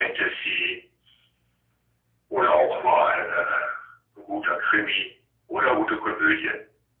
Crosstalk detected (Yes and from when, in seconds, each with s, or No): No